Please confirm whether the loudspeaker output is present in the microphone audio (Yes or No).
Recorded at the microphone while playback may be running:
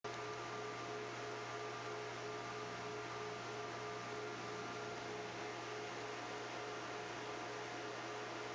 No